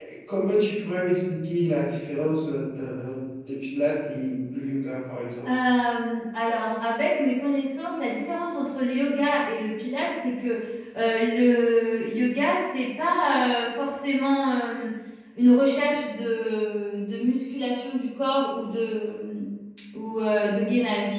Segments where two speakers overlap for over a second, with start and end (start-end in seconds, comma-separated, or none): none